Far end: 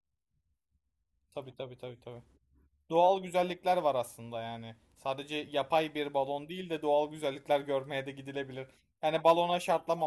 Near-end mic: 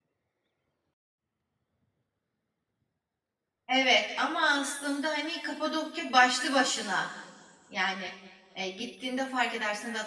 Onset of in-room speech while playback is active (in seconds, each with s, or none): 3.7 s